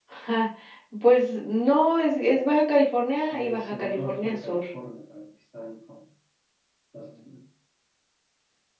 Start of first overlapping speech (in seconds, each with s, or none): 3.3 s